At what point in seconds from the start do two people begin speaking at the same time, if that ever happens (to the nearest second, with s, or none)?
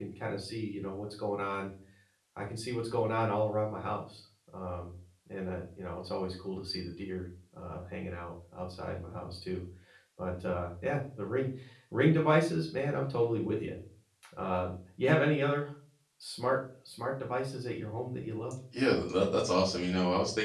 none